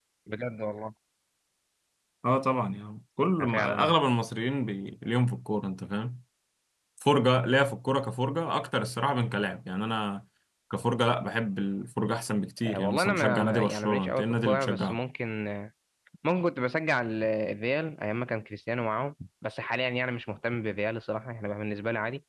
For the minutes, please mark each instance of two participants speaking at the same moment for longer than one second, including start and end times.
12.7-15.0

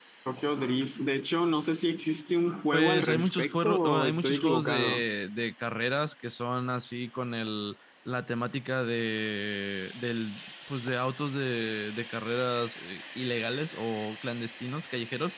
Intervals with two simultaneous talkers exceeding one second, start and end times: 2.7-5.0

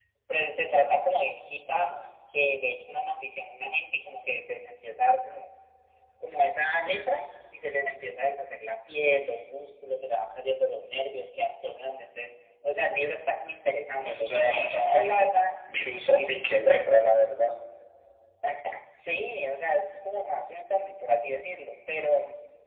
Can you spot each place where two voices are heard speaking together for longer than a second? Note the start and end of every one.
none

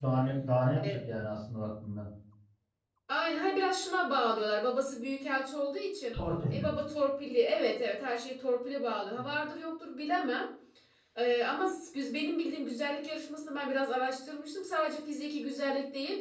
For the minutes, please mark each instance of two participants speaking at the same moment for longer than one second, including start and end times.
none

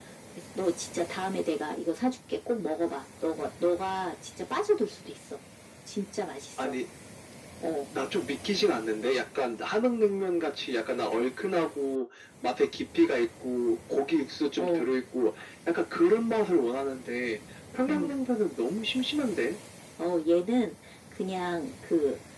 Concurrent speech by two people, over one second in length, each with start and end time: none

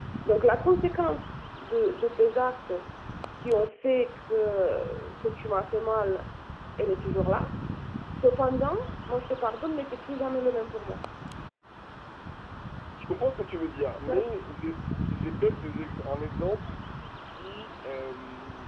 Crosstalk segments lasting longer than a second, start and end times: none

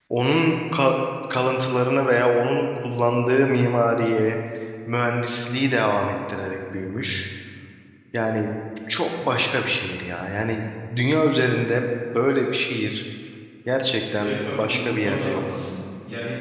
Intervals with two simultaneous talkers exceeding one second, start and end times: 14.2-15.4

